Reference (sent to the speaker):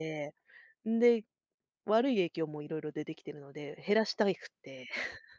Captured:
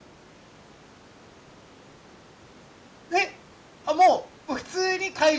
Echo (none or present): none